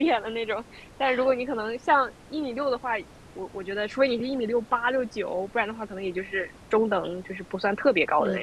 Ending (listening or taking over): taking over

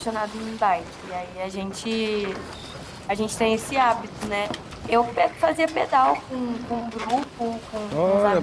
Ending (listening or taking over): taking over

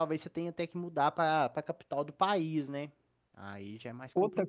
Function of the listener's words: taking over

